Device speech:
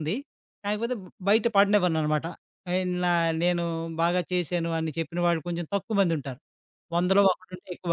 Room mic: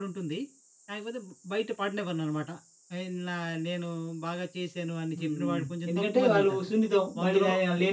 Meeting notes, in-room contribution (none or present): present